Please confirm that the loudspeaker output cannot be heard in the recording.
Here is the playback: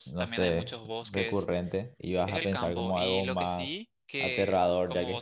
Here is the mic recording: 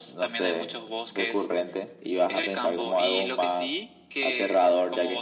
No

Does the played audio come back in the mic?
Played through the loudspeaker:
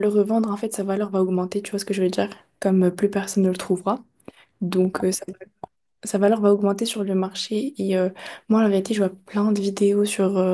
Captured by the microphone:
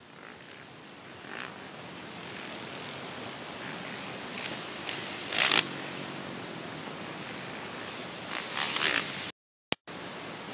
No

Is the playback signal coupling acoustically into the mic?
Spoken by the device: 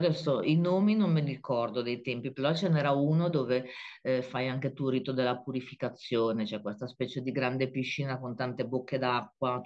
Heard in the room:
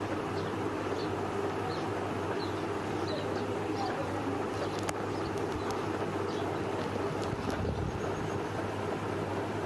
No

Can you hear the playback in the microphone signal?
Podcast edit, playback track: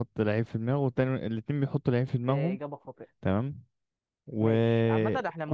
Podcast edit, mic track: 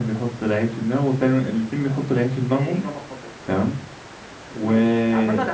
Yes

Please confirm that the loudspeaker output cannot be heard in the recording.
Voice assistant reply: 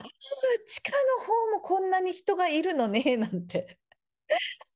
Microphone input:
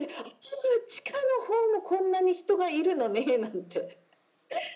No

